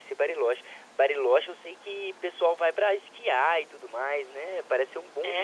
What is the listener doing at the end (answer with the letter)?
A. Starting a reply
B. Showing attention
A